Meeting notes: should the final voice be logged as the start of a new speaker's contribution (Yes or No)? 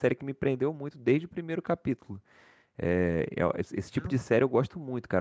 No